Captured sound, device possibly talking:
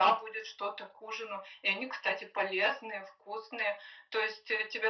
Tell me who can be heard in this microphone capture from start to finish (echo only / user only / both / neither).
echo only